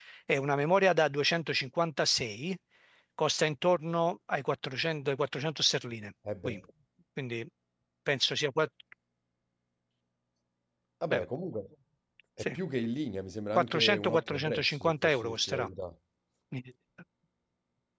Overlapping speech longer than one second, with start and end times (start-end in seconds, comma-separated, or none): 13.6-15.7